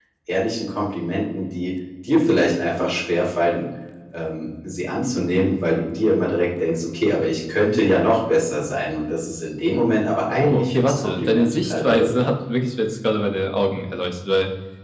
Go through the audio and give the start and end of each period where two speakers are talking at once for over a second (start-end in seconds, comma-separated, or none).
10.3-12.3